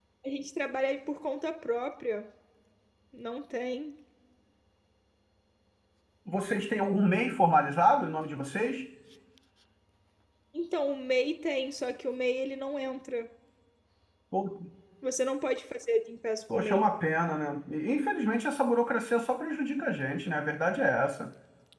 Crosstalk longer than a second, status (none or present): none